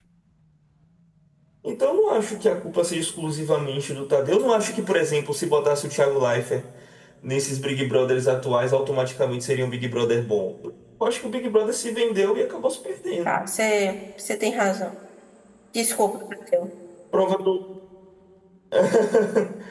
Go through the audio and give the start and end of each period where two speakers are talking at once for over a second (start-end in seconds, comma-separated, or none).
none